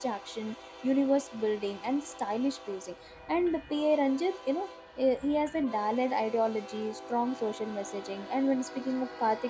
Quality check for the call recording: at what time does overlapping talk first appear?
none

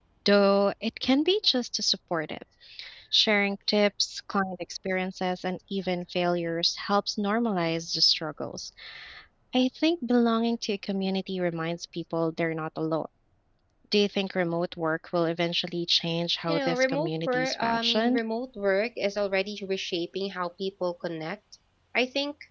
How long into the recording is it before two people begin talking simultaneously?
16.5 s

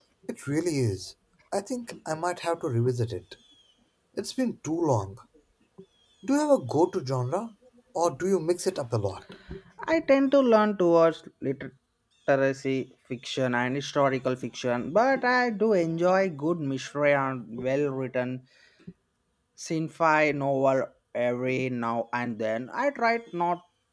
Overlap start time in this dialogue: none

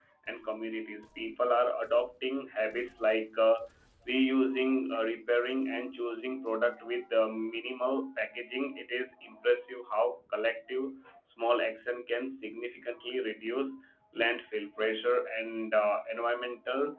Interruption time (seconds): none

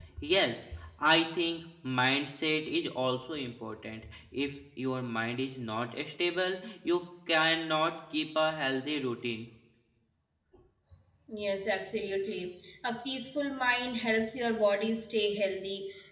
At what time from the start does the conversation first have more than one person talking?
none

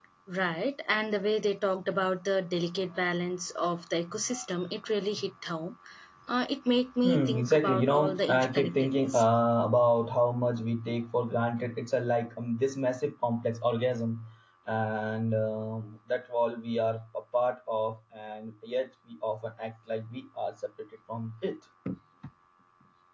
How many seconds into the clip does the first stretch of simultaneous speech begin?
7.0 s

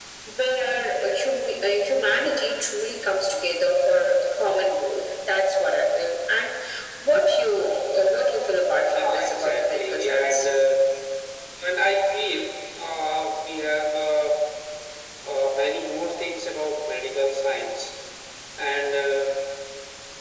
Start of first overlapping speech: 8.8 s

